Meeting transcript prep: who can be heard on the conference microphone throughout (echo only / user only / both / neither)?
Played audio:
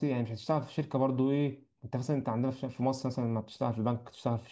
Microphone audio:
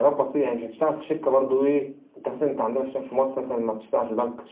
echo only